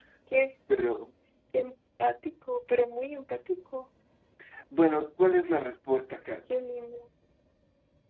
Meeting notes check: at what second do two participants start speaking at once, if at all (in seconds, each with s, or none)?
none